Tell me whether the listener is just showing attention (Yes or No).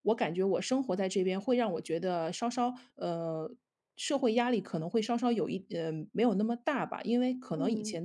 Yes